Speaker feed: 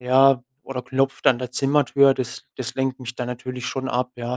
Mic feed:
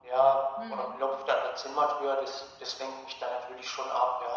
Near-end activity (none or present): present